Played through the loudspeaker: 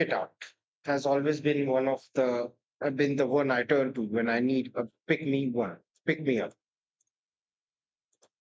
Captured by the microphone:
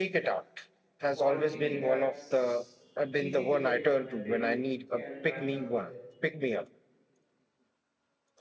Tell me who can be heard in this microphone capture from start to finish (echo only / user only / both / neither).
both